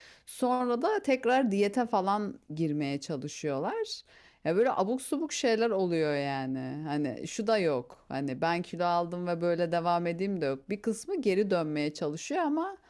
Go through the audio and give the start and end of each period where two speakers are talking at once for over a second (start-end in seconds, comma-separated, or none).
none